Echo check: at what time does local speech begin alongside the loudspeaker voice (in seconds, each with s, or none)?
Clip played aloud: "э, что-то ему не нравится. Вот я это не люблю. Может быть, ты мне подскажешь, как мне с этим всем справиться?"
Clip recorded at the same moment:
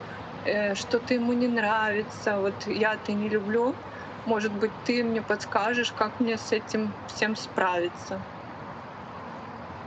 none